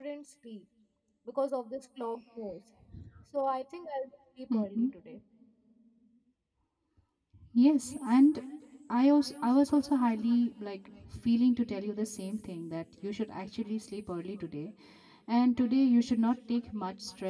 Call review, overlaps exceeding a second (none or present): none